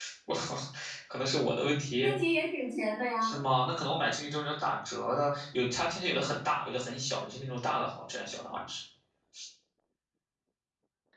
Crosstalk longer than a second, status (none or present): none